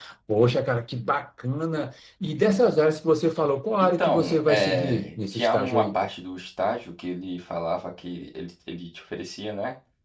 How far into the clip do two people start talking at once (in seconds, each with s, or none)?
3.8 s